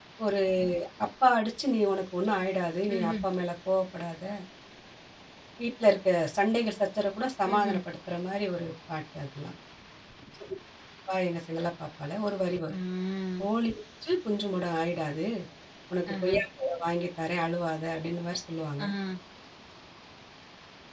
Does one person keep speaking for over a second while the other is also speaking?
No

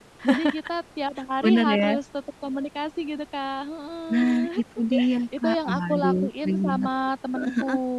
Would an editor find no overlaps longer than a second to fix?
No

